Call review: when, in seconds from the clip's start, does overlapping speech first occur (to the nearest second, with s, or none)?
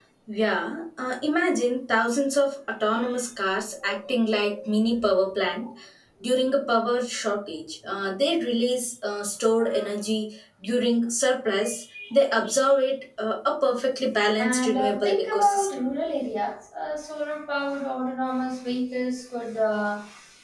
14 s